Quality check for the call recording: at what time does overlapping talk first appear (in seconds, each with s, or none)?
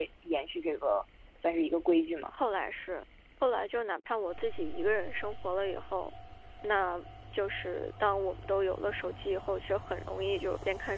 none